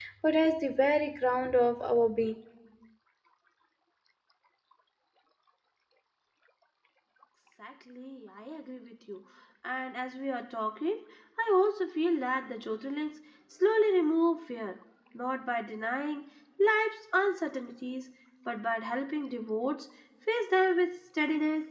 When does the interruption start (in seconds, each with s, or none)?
none